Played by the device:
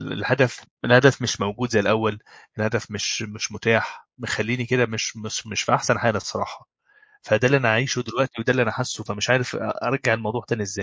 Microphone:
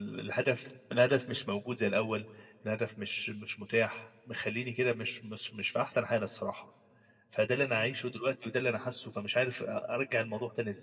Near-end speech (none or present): none